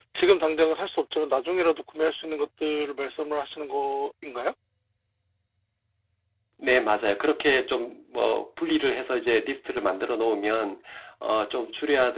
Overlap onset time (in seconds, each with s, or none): none